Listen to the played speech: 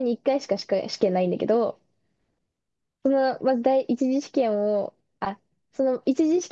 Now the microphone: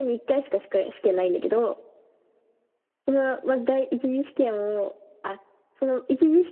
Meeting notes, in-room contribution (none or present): none